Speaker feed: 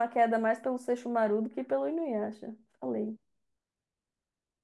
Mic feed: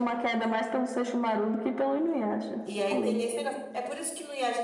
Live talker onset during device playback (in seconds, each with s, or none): 2.6 s